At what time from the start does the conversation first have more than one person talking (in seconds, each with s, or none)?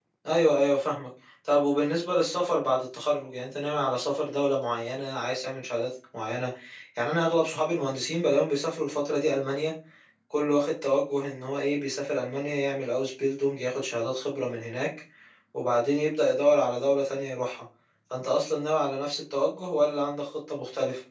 none